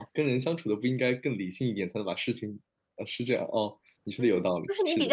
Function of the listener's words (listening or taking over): taking over